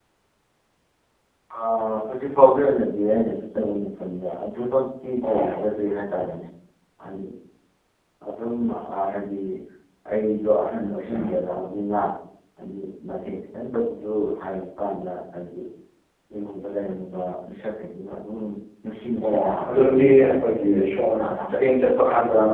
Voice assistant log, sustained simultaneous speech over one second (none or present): present